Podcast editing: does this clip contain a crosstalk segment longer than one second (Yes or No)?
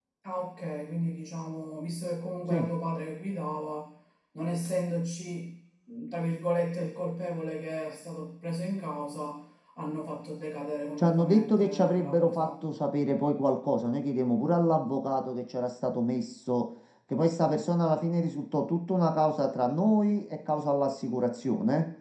Yes